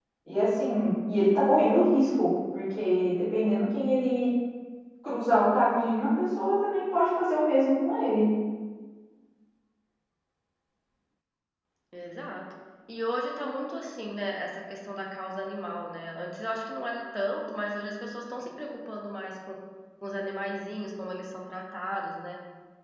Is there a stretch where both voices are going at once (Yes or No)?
No